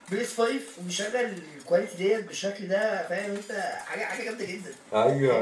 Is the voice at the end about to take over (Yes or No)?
Yes